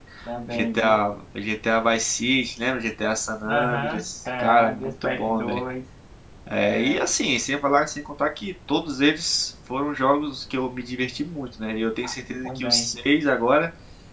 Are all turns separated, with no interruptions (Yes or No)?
No